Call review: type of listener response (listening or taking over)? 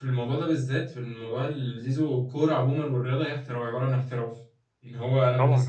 listening